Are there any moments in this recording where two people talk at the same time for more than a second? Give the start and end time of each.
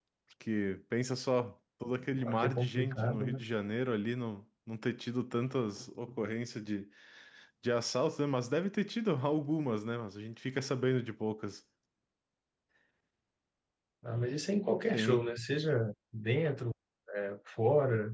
2.2-3.4

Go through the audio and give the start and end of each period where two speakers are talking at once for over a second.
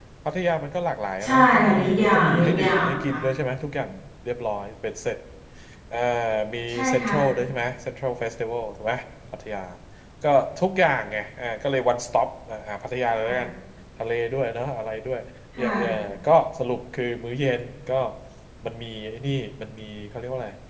1.2-3.2

